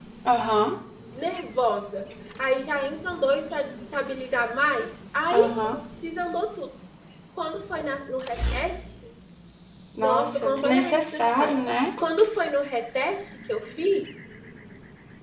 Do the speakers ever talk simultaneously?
Yes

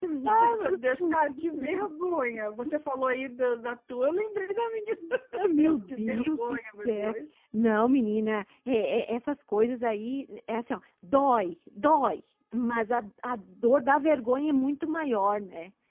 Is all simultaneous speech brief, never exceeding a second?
No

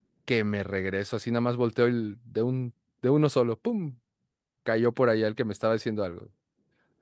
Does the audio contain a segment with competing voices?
No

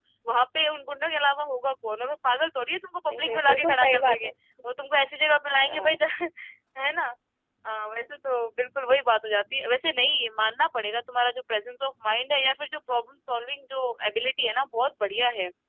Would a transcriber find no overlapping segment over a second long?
No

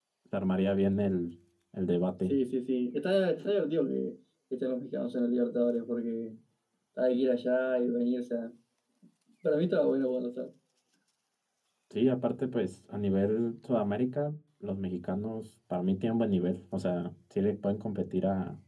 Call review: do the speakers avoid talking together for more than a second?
Yes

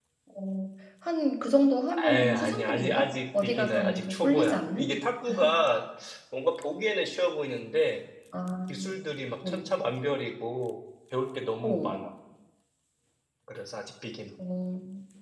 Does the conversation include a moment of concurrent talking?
Yes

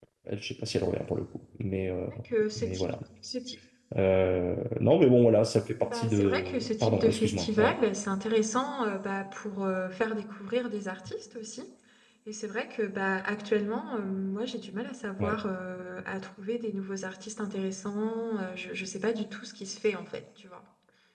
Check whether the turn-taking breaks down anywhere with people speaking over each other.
Yes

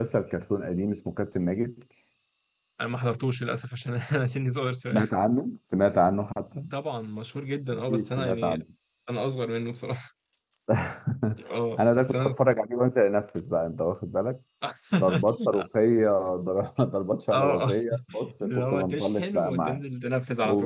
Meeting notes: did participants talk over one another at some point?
Yes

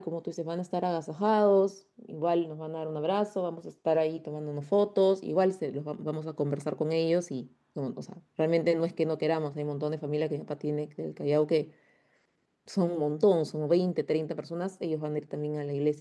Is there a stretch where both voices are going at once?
No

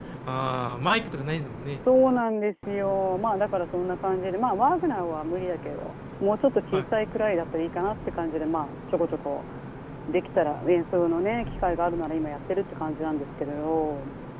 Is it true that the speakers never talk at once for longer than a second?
Yes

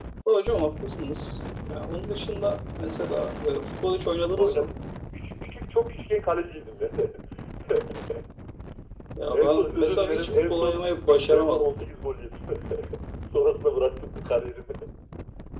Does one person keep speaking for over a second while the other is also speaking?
Yes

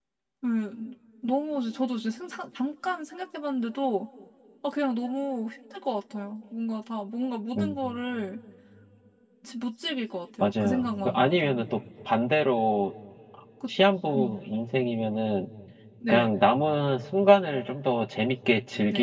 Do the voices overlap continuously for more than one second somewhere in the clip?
Yes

